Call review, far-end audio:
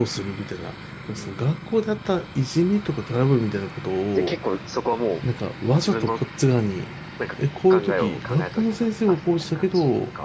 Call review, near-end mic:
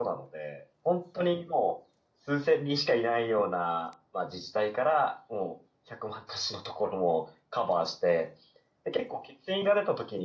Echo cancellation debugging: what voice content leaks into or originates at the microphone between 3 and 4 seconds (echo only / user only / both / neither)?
user only